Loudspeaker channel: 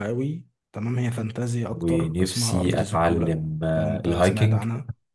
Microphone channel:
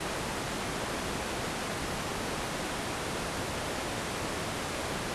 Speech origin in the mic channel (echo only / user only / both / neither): neither